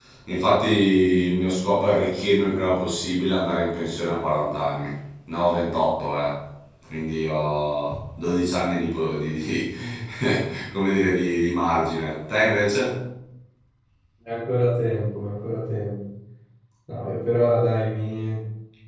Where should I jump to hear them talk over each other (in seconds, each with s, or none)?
none